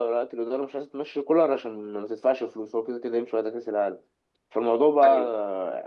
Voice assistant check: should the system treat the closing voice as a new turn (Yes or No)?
No